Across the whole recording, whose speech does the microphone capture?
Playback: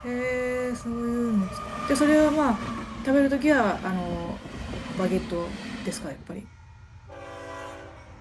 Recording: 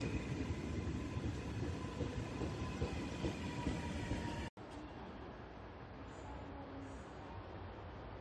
neither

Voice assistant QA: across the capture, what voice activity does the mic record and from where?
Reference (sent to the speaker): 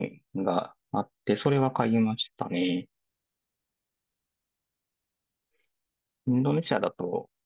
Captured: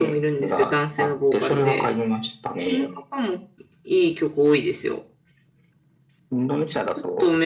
both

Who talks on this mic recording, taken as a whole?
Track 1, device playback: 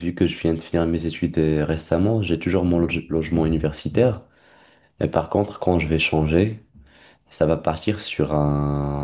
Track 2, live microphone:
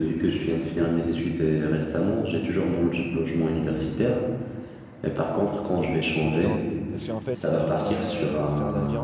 both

